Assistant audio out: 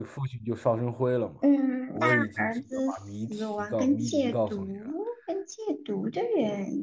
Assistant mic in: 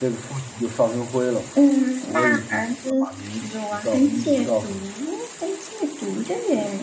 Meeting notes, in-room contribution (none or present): none